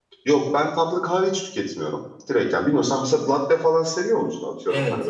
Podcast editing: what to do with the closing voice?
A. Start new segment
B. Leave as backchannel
A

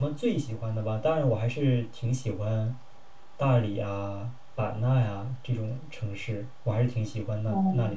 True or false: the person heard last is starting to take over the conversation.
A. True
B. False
A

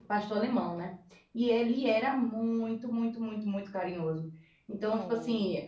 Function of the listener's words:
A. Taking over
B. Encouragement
B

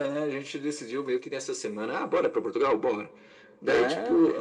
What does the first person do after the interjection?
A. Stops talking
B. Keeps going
B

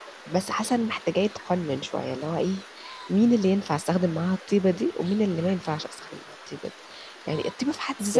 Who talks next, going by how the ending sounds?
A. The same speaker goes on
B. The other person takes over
A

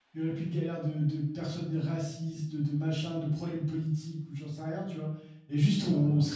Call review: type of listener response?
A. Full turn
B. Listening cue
B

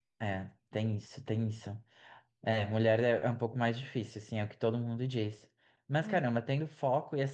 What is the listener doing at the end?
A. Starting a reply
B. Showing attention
B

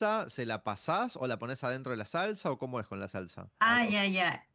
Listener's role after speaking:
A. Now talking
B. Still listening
A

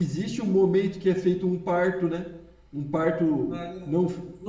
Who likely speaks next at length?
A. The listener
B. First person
A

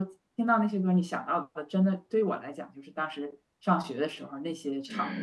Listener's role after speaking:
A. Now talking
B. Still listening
A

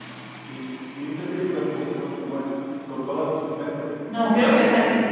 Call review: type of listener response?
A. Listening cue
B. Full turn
B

